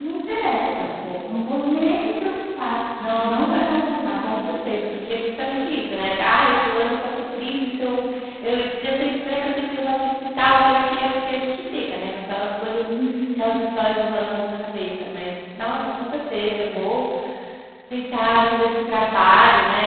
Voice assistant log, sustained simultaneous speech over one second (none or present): none